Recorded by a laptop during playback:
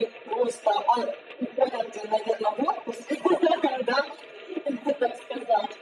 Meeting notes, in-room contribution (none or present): none